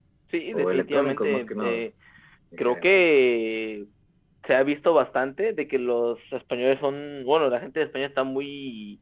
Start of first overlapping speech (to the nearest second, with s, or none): 1 s